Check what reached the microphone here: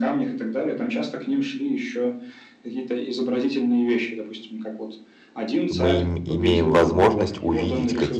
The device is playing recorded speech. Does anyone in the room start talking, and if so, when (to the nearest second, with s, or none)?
6 s